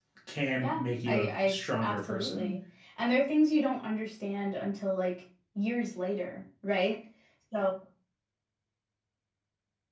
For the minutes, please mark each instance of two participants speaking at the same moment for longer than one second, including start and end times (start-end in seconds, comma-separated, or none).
0.6-2.6